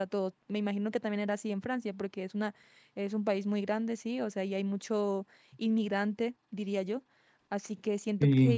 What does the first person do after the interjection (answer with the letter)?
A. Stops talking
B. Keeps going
B